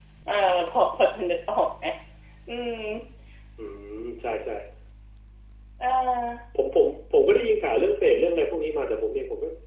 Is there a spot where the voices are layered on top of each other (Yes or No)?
No